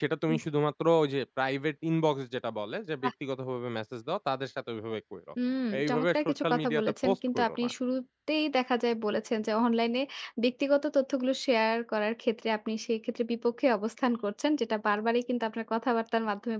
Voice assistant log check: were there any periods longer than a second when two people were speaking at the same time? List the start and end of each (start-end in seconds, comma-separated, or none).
5.8-7.7